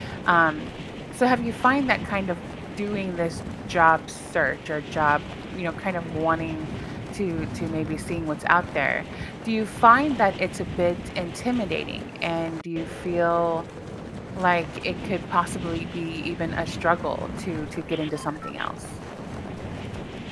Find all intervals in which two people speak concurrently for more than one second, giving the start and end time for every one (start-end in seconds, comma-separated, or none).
none